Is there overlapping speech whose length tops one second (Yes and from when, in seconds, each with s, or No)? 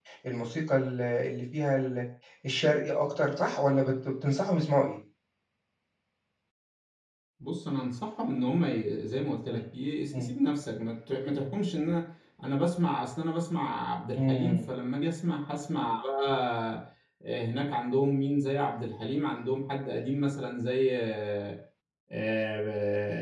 No